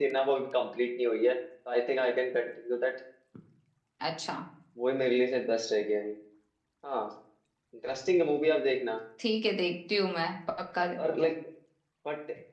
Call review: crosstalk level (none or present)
none